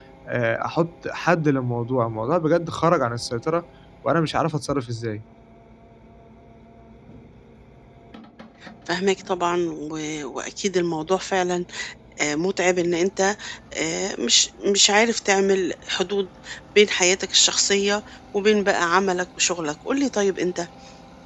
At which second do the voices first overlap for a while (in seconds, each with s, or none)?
none